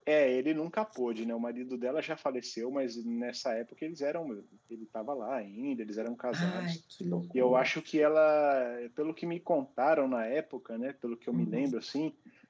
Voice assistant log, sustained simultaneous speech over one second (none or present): none